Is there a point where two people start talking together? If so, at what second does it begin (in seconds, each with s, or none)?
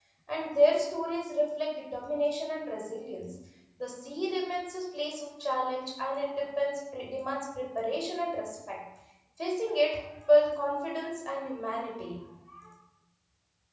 none